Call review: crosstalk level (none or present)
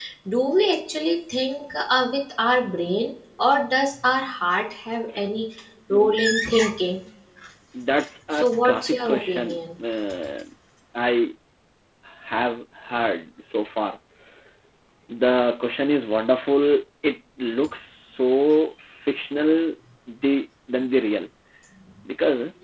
present